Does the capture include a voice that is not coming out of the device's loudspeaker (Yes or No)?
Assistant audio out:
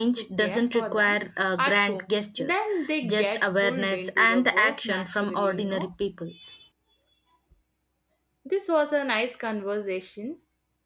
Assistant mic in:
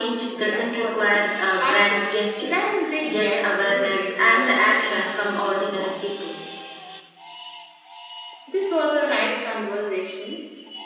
No